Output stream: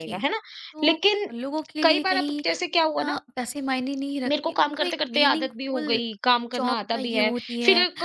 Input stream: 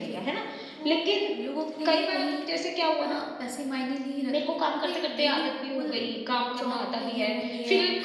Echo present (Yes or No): Yes